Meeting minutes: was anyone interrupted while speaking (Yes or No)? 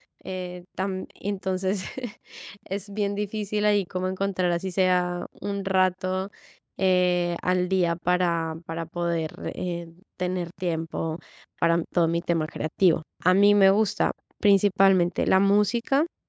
No